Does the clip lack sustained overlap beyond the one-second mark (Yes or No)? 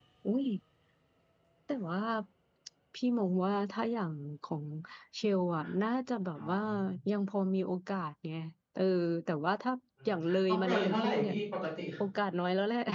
No